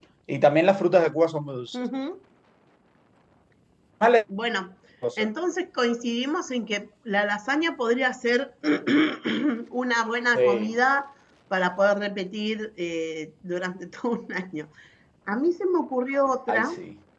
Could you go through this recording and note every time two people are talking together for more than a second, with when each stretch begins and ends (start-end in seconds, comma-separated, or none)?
none